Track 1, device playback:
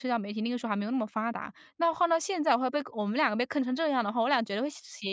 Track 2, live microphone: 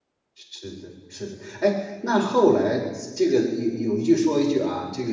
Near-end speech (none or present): present